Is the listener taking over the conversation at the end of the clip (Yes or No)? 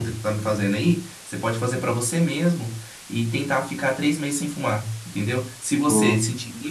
No